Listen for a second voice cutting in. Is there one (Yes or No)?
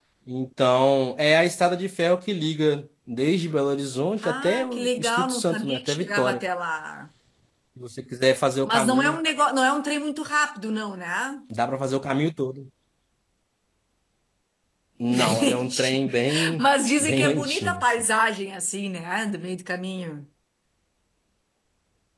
Yes